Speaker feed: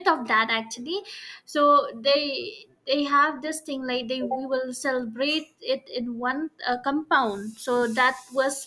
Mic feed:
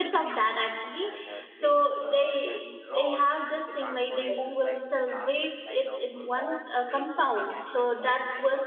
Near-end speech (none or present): present